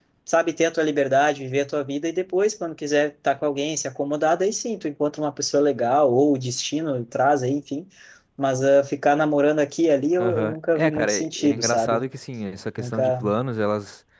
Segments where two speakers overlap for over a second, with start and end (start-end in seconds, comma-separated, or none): 10.2-12.0